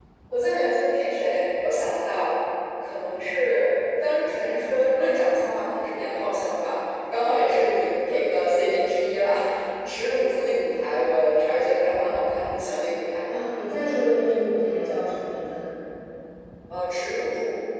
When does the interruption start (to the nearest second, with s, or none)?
none